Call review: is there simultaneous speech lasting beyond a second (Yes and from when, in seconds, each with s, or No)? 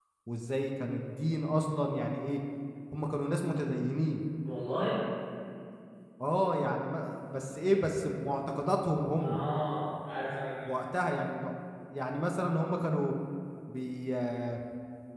No